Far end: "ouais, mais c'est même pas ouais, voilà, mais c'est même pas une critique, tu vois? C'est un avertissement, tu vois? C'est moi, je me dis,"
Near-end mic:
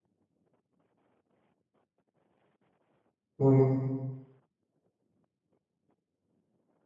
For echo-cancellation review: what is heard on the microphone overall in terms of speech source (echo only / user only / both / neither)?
user only